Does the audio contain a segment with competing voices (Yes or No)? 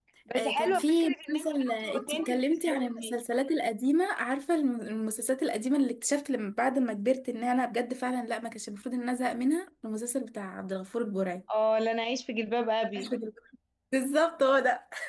Yes